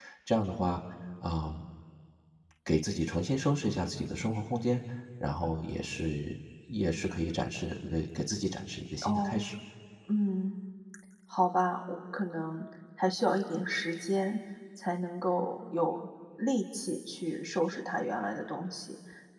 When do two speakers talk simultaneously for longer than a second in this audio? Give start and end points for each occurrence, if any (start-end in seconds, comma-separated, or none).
none